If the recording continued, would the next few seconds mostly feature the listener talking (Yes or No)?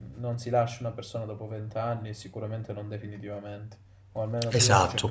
Yes